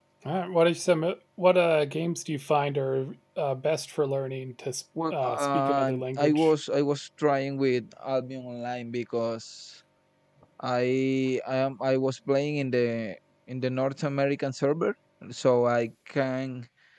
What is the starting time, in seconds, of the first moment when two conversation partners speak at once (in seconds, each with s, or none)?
5.0 s